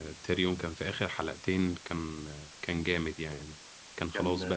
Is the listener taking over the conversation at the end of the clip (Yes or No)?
No